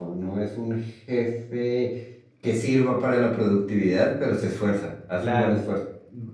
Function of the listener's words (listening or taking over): taking over